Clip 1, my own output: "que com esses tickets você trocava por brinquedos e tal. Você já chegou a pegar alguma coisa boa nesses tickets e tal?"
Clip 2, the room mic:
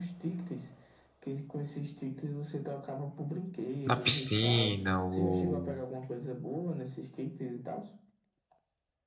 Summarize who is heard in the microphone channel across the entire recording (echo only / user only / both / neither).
both